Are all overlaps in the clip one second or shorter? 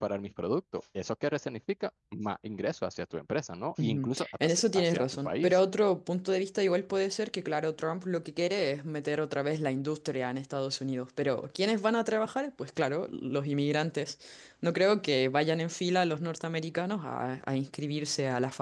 No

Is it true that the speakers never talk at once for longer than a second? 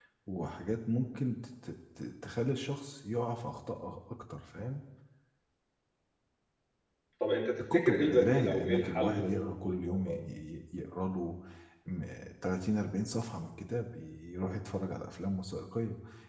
No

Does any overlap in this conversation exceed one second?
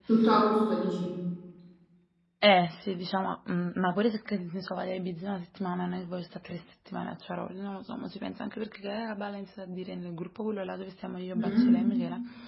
No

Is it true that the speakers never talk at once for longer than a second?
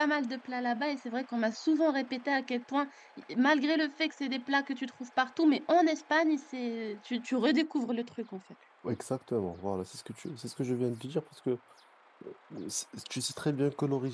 Yes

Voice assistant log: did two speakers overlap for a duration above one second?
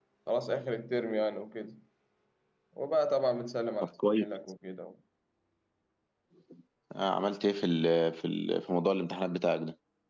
No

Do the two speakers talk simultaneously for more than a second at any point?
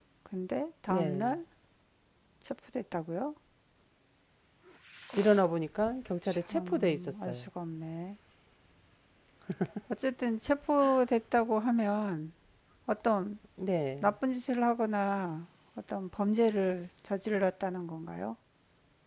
Yes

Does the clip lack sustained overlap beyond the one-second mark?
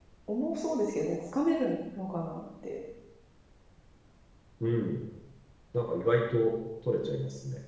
Yes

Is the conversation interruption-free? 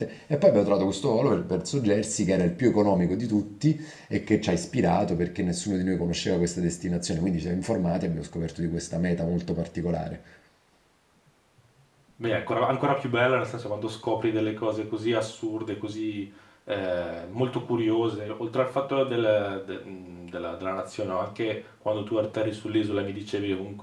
Yes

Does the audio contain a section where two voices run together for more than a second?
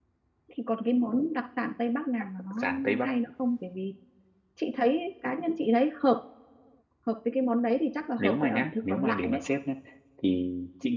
Yes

